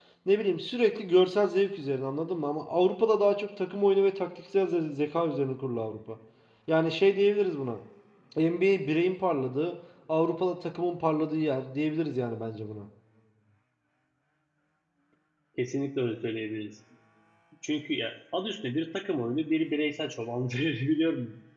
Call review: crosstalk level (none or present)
none